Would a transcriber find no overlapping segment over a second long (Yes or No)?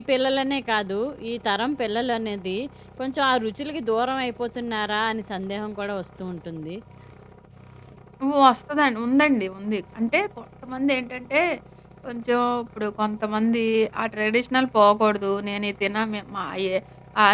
Yes